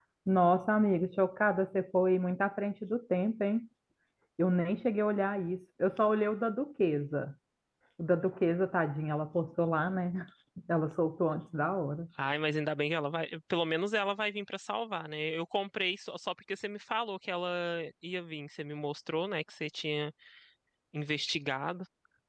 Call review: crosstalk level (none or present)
none